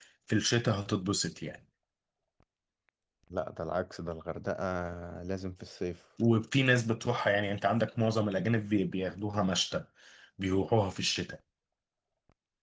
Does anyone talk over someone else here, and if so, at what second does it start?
none

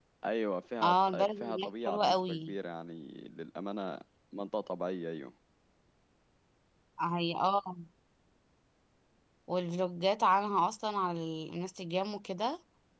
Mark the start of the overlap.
0.8 s

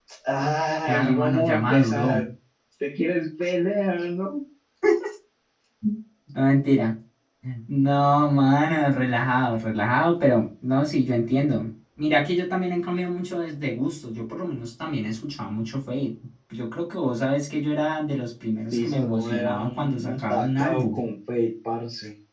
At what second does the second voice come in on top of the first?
0.9 s

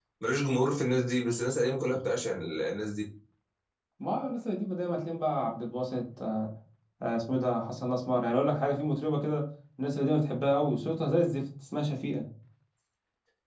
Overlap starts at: none

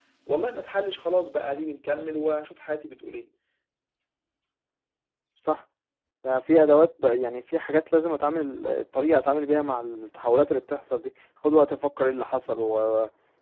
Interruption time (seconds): none

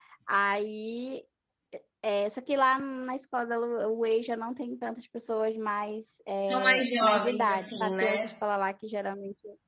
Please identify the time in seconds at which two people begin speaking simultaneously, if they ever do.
6.5 s

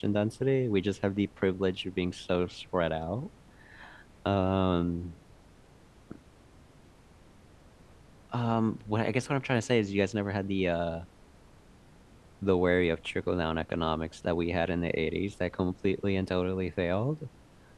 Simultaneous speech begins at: none

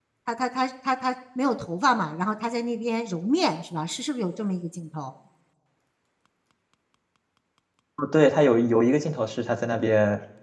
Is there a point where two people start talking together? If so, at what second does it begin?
none

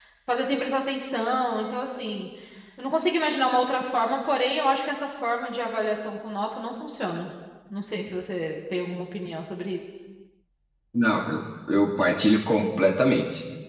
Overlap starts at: none

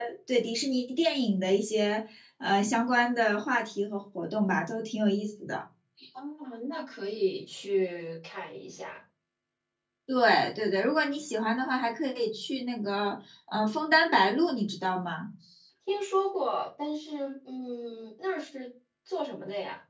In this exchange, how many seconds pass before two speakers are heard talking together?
none

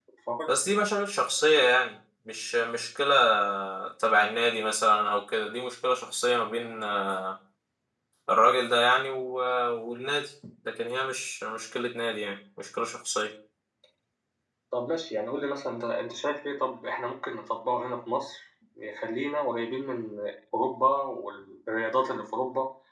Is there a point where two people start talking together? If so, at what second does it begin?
none

